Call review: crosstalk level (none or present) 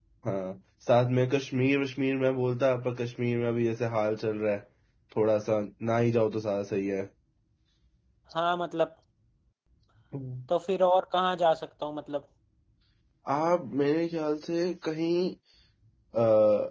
none